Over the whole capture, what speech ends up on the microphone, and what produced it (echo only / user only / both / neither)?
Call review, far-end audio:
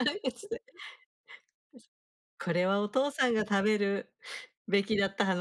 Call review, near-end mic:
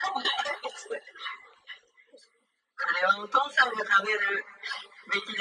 echo only